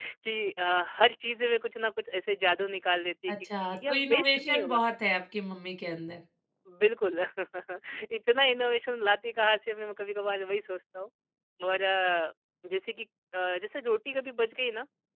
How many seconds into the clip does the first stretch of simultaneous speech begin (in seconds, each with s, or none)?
3.3 s